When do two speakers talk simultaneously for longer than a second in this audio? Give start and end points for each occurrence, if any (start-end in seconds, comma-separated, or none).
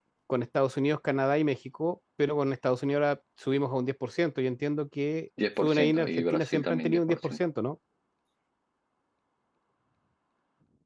5.6-7.4